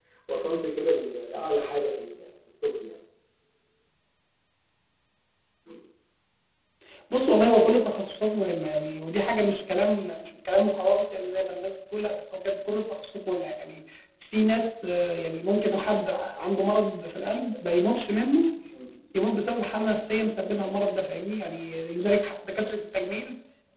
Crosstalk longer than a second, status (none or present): none